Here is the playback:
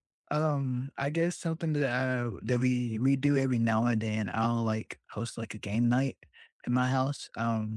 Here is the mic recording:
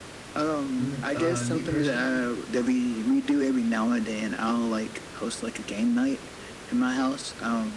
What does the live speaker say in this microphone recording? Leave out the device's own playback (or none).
M- Uh, me personally,